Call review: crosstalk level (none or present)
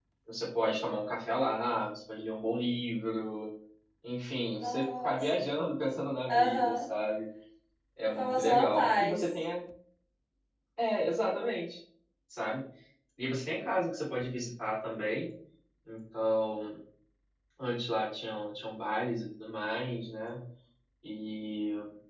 present